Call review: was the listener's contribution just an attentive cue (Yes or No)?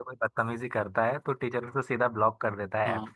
No